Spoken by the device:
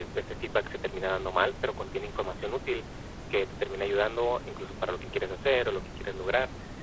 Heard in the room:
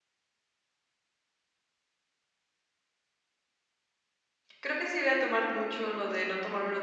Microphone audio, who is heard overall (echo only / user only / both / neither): user only